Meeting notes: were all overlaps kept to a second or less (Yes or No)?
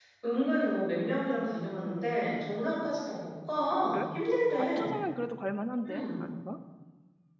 Yes